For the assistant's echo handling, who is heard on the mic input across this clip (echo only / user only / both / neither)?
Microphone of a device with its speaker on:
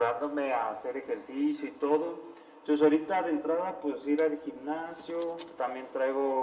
echo only